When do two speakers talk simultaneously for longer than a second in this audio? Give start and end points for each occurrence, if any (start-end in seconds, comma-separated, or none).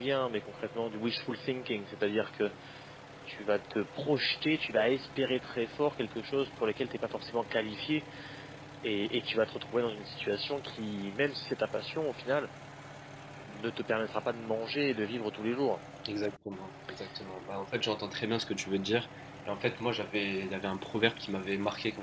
none